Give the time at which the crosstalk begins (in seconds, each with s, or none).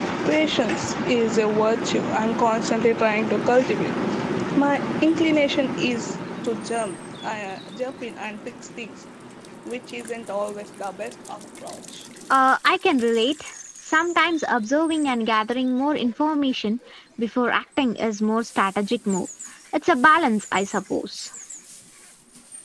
none